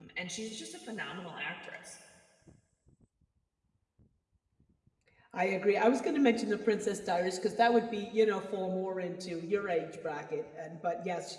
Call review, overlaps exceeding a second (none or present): none